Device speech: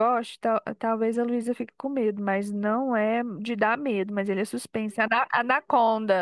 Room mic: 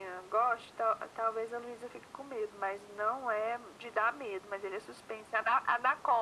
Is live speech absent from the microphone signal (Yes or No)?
Yes